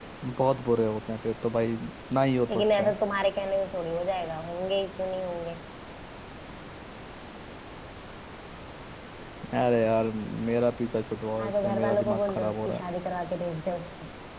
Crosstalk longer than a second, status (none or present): present